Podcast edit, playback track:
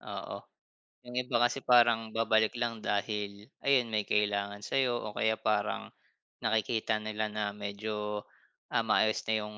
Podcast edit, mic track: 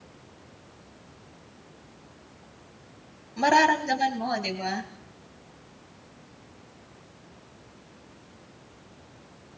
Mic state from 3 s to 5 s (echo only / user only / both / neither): user only